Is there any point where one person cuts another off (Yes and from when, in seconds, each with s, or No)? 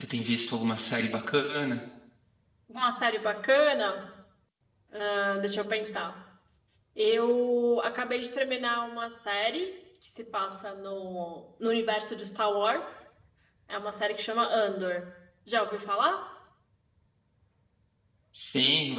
No